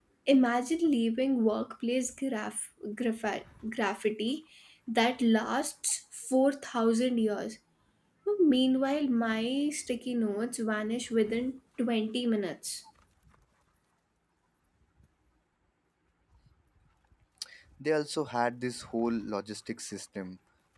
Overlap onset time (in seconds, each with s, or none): none